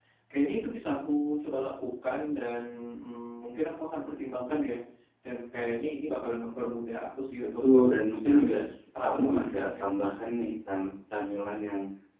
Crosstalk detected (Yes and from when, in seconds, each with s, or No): Yes, from 7.4 s